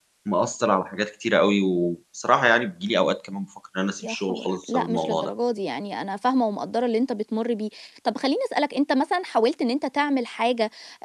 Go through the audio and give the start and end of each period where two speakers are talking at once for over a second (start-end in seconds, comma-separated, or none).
4.0-5.3